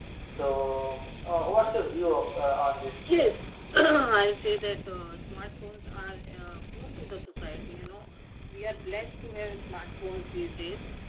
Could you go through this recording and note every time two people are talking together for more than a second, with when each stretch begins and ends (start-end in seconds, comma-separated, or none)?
none